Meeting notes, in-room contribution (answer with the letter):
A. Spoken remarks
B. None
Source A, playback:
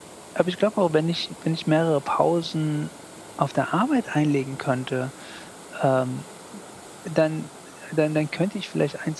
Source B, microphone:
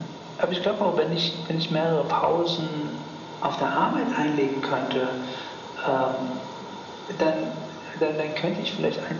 B